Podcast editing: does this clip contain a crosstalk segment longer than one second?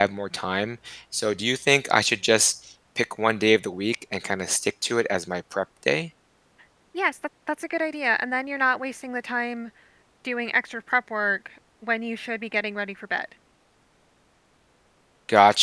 No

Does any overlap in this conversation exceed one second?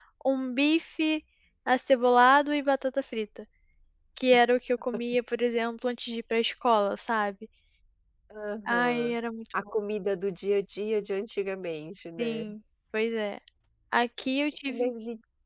No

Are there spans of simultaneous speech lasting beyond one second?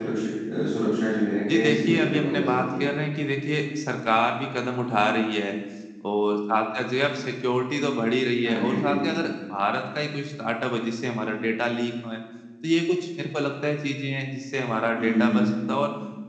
Yes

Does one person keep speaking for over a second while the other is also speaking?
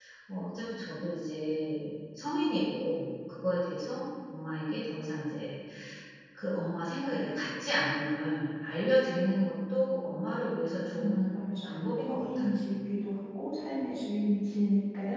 Yes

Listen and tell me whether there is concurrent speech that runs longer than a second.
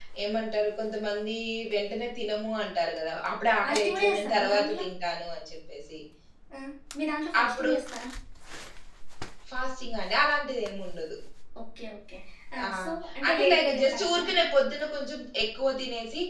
Yes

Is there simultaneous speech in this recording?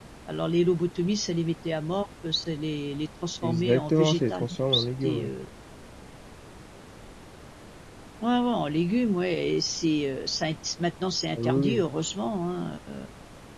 Yes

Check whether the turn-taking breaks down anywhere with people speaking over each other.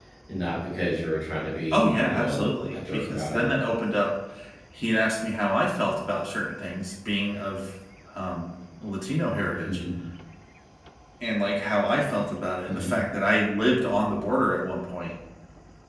Yes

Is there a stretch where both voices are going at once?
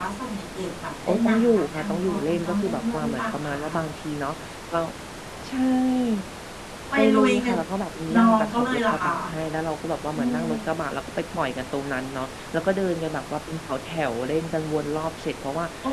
Yes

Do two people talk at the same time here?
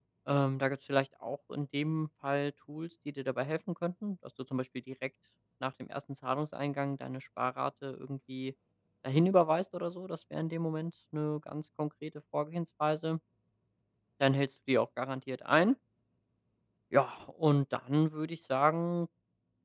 No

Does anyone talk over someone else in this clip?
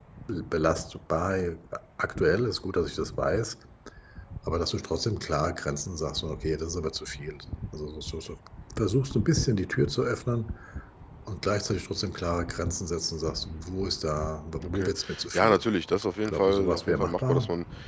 Yes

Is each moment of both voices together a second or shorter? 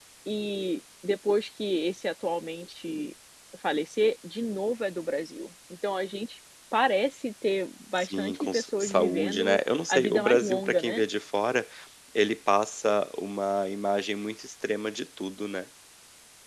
No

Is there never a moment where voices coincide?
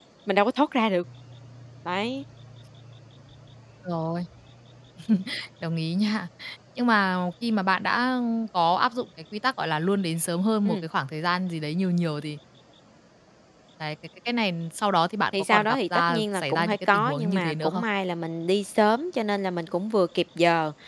No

